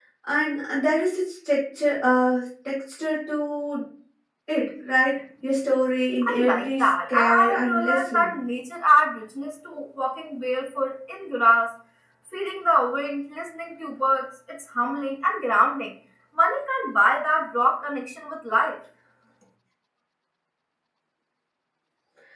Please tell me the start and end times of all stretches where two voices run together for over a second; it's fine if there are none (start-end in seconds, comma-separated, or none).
6.2-8.3